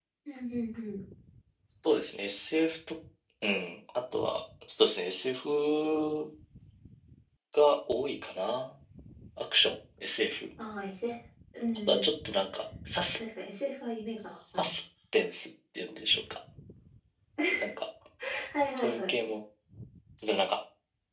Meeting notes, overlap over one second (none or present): none